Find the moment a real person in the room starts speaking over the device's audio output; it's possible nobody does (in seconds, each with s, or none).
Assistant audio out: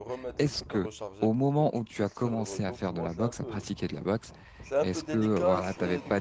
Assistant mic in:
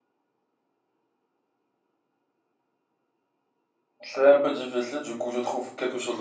4.0 s